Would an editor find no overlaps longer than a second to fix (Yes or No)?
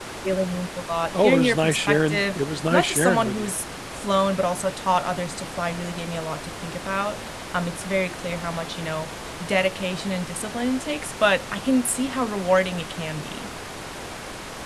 No